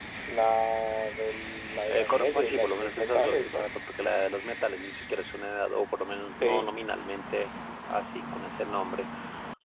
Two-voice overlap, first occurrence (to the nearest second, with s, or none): 2 s